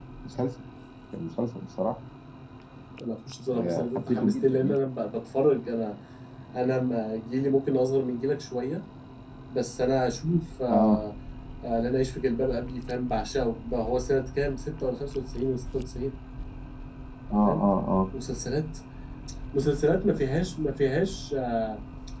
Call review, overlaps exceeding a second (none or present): present